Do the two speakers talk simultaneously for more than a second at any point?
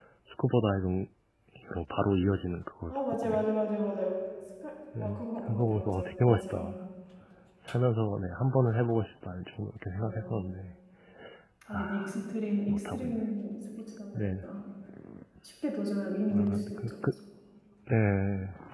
Yes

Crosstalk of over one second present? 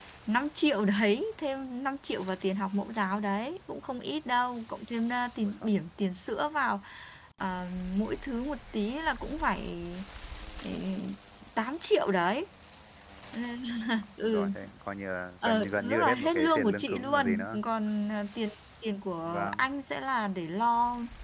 Yes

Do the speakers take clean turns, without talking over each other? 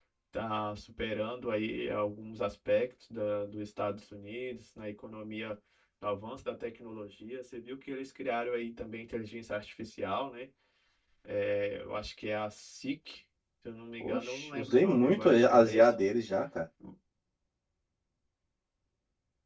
No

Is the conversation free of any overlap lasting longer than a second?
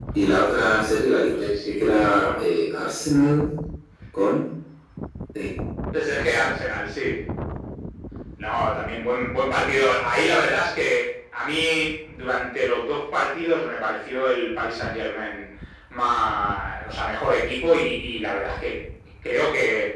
No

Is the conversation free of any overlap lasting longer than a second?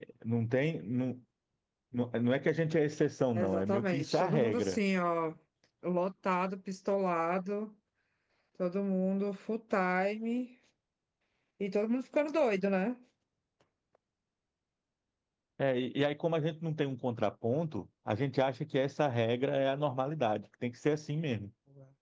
No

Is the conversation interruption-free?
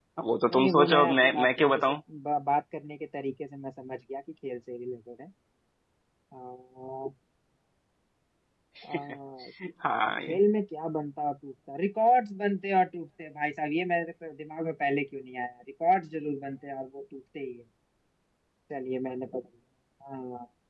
No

